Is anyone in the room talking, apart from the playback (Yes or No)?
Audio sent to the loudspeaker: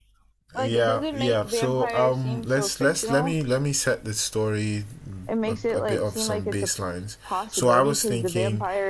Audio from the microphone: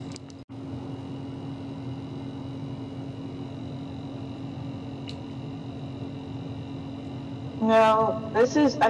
Yes